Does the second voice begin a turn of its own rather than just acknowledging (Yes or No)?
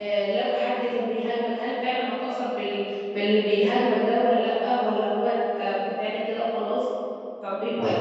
No